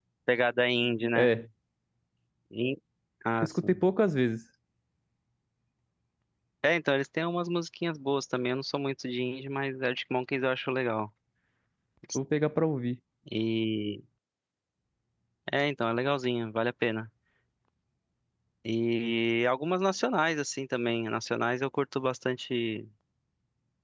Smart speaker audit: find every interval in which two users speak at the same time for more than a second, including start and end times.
none

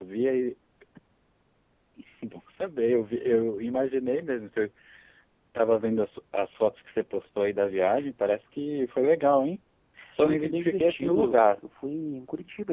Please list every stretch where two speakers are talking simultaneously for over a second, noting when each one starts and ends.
10.2-11.6

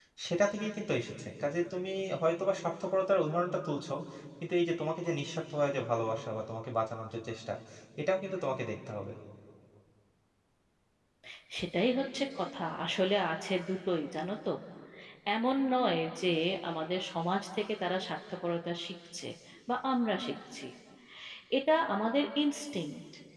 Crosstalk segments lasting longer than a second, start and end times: none

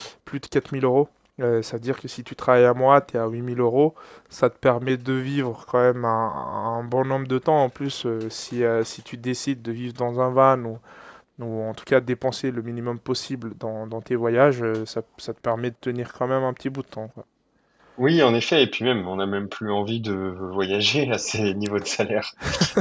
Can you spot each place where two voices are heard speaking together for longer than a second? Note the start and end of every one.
none

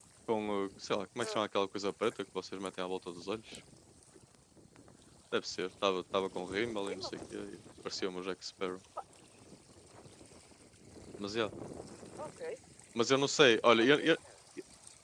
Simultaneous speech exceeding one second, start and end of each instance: none

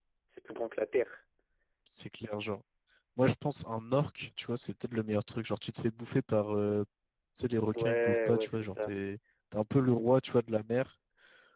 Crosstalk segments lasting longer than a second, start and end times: 7.7-8.9

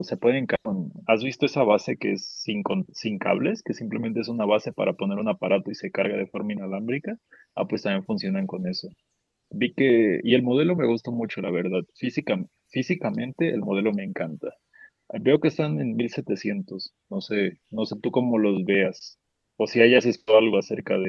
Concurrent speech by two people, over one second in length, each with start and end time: none

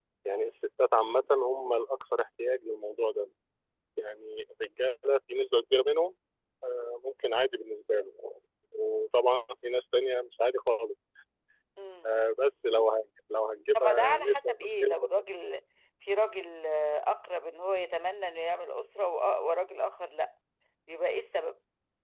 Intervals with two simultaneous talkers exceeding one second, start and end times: 13.8-14.9

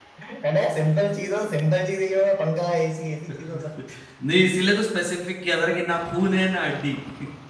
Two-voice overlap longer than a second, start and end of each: none

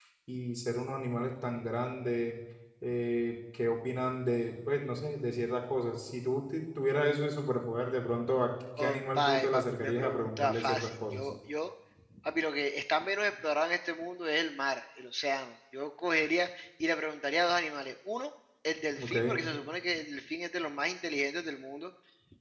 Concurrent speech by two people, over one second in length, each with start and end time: 8.8-11.2

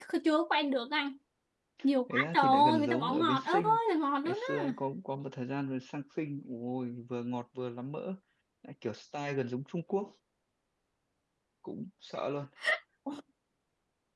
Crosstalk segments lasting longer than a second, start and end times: 2.1-3.8

